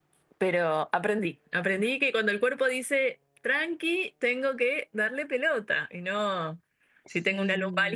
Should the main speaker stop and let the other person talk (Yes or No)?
No